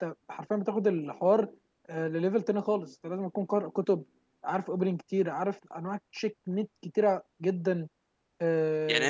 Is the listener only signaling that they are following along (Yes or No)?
No